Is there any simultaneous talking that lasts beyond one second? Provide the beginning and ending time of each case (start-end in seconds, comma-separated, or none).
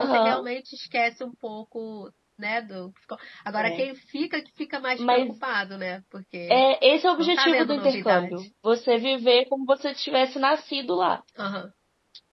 7.2-8.4